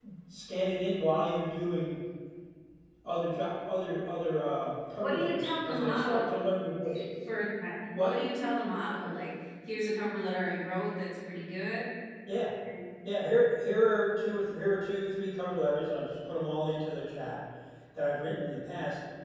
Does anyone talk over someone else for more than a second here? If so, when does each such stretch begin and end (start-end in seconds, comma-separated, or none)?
5.0-6.4